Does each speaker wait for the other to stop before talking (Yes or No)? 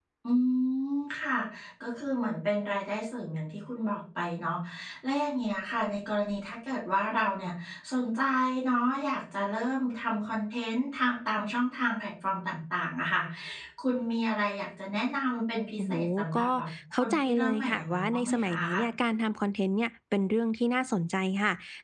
No